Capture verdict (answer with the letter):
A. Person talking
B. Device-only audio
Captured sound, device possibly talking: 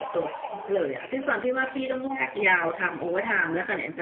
A